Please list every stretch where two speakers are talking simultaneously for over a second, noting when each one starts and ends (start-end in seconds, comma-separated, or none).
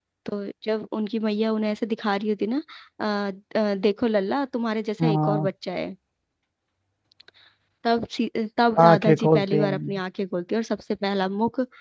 8.8-10.0